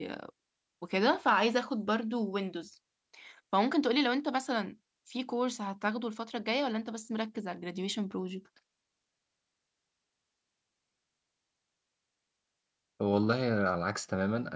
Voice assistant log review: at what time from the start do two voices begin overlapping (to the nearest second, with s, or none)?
none